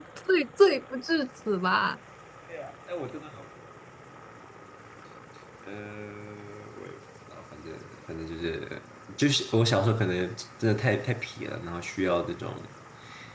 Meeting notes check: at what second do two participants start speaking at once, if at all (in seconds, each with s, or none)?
none